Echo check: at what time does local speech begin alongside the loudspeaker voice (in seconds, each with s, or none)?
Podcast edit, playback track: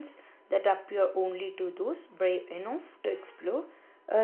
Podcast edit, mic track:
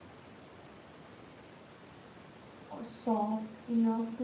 2.7 s